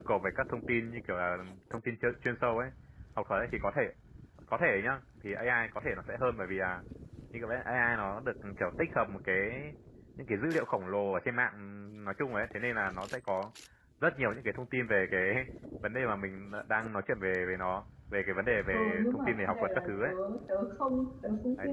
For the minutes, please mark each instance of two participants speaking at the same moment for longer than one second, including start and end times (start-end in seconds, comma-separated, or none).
18.7-20.1